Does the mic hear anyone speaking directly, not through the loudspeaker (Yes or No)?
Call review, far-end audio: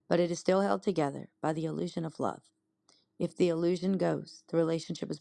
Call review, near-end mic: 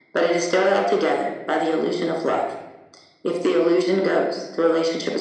No